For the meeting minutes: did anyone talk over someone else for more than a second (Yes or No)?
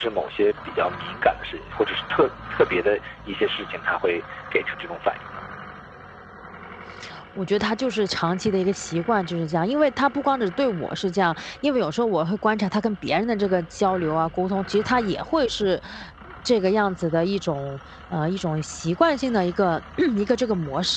No